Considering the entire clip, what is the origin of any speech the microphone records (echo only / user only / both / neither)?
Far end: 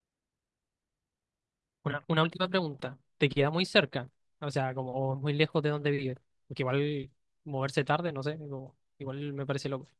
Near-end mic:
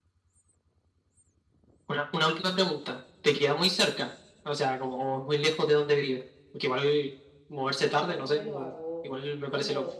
both